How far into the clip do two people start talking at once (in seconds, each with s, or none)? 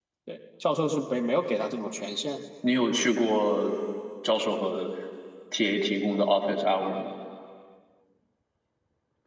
none